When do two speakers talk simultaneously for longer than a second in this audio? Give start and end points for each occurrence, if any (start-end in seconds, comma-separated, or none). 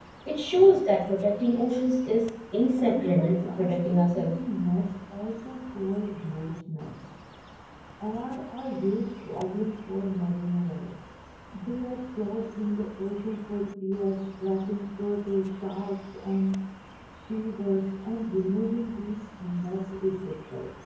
2.7-4.4